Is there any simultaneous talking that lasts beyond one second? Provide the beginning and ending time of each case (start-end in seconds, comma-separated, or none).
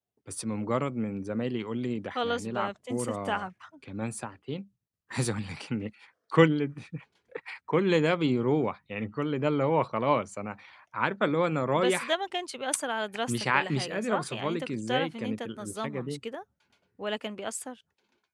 2.1-3.5, 13.3-16.2